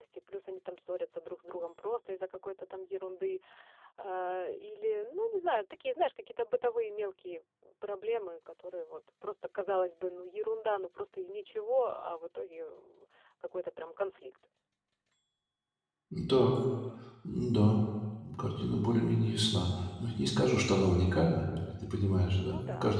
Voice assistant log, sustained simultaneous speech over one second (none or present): none